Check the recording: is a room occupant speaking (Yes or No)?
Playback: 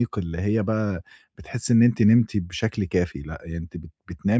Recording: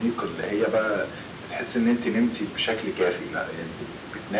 No